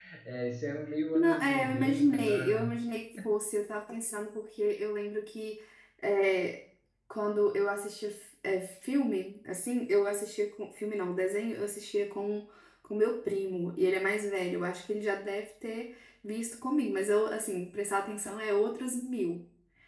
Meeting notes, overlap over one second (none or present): present